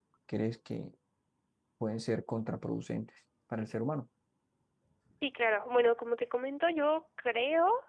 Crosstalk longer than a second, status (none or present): none